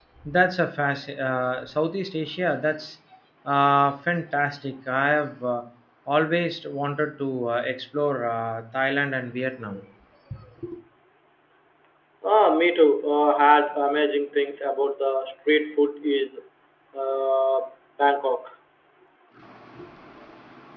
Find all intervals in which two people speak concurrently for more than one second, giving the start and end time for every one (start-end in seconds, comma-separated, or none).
none